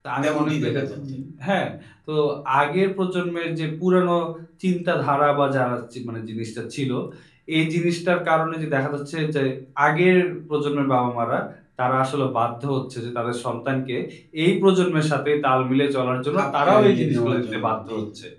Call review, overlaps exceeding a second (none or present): present